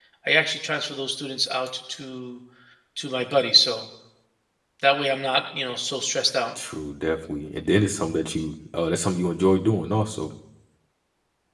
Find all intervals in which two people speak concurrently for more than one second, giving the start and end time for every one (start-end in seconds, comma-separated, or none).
none